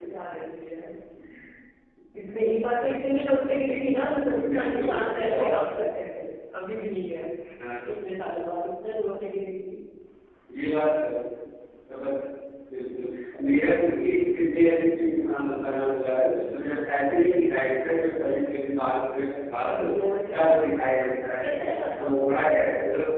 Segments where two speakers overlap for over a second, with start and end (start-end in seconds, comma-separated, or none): 4.2-5.8